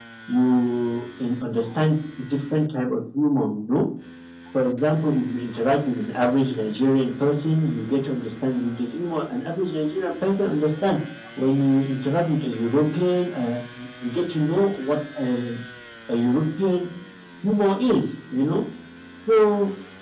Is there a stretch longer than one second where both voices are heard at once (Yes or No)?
No